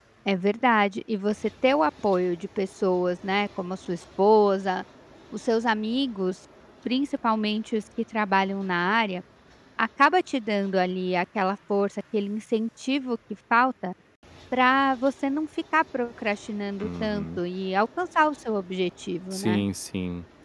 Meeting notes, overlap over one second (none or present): none